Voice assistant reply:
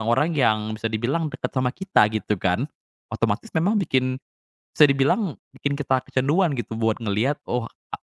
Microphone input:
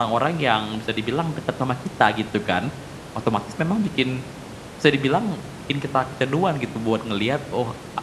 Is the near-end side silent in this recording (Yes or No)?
Yes